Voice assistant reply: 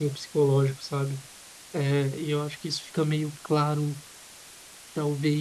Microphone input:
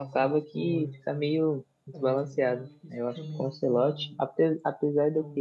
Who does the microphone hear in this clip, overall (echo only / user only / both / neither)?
both